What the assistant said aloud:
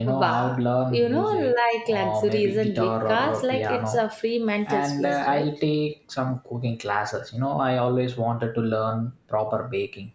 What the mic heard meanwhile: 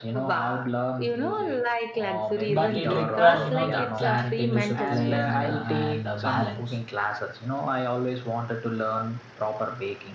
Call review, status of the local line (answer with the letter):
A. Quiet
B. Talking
B